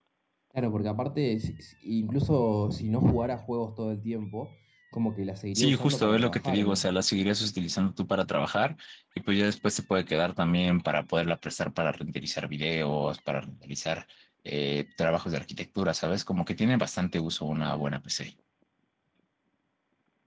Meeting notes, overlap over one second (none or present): present